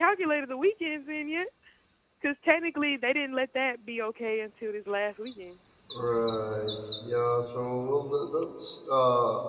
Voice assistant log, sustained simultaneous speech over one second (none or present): none